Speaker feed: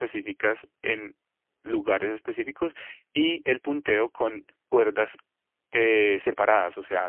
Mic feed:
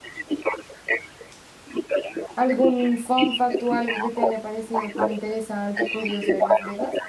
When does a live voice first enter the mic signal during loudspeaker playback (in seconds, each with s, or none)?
2.3 s